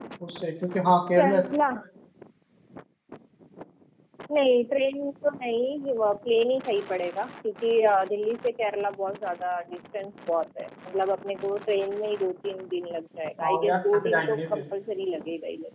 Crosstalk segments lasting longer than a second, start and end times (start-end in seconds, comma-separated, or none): 13.4-14.7